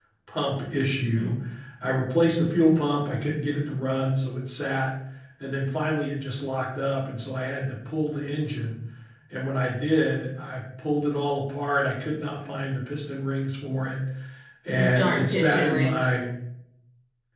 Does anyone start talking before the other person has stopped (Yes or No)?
Yes